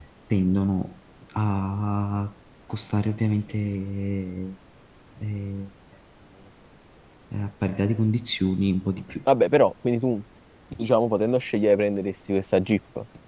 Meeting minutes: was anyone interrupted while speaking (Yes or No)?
No